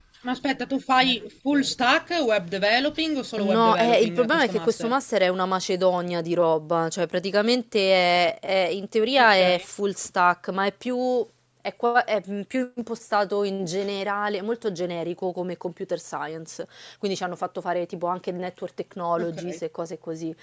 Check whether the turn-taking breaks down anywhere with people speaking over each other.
Yes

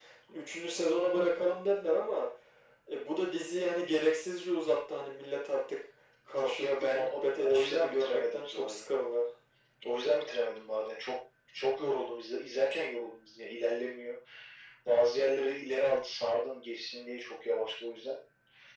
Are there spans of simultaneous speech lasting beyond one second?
Yes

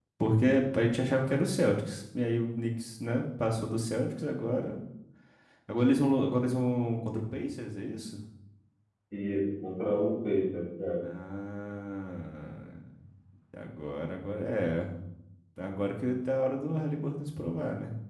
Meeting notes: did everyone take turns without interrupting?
Yes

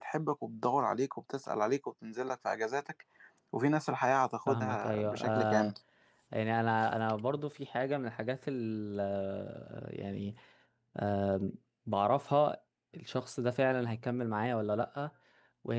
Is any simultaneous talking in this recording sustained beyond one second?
Yes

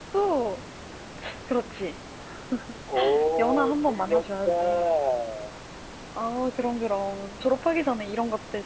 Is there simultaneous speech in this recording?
Yes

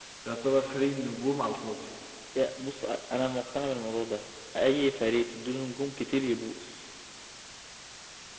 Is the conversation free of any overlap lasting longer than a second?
Yes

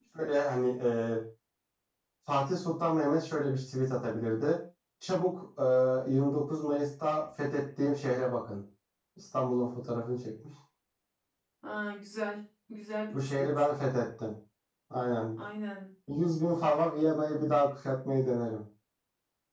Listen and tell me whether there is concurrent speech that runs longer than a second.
No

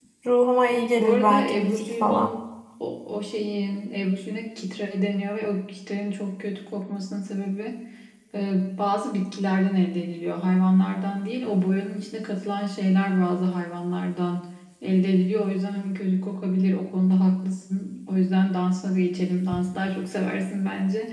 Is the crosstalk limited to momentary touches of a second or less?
No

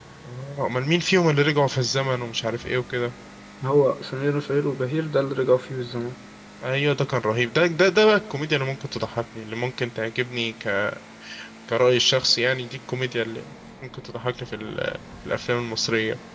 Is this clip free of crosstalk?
Yes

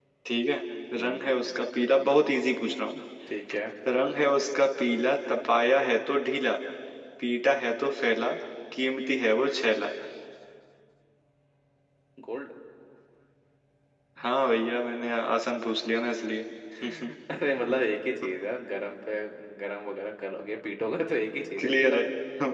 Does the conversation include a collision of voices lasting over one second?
No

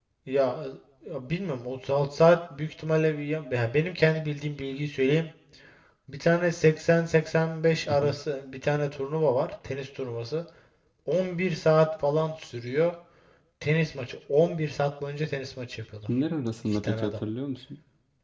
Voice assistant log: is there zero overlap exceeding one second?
Yes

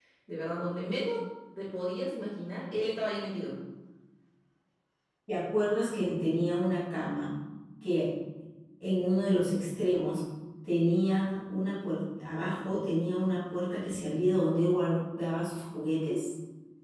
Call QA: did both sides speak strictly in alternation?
Yes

